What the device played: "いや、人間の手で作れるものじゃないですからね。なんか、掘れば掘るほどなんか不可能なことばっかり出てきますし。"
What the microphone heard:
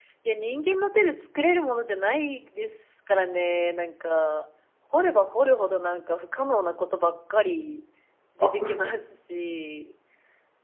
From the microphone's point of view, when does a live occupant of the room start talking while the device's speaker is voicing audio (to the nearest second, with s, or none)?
8 s